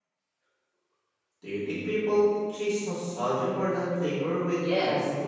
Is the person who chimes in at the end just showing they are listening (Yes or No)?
No